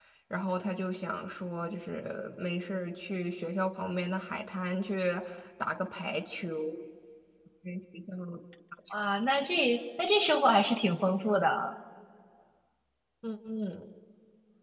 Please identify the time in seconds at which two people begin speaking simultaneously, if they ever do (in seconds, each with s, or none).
none